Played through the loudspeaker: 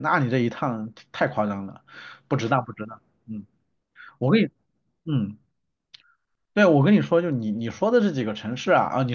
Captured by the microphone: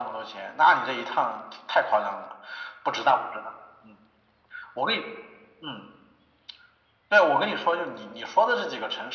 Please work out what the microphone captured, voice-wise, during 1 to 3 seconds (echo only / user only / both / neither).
echo only